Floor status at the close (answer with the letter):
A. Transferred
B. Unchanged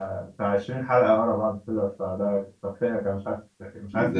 A